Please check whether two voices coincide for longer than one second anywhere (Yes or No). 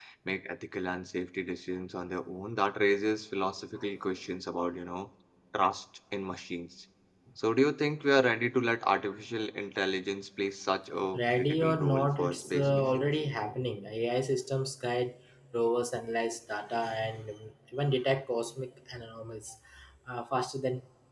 Yes